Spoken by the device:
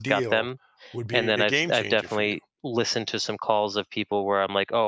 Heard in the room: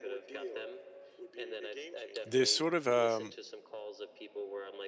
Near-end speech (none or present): present